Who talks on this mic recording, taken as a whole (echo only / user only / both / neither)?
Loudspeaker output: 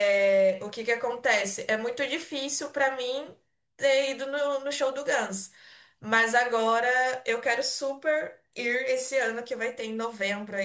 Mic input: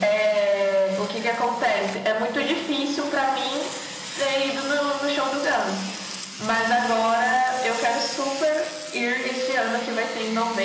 echo only